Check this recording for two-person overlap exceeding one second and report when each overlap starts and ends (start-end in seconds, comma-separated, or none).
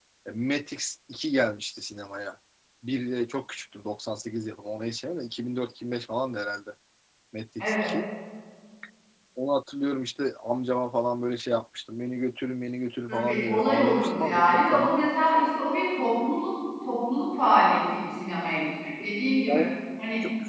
13.1-14.9